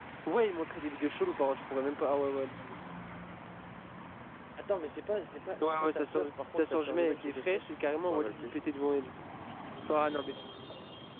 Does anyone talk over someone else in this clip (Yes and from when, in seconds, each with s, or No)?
Yes, from 5.6 s